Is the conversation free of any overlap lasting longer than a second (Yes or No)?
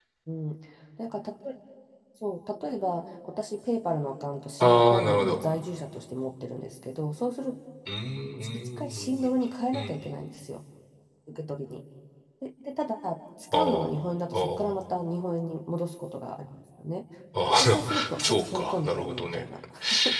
No